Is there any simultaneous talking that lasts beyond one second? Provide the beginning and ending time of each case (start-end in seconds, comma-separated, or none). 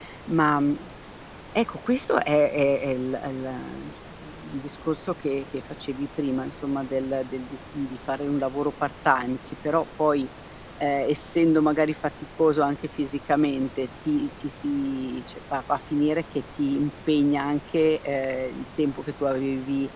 none